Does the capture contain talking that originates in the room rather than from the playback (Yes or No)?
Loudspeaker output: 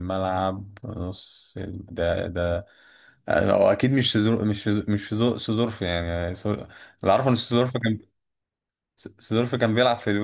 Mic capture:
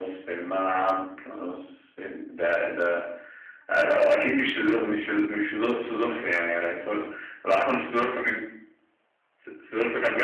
No